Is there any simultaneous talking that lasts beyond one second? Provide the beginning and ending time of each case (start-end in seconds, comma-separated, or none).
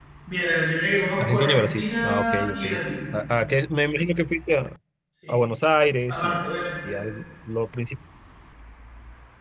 1.2-2.6